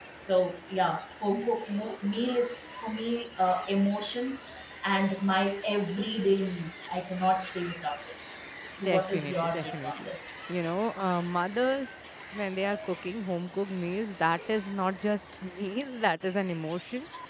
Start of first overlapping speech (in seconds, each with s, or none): 8.8 s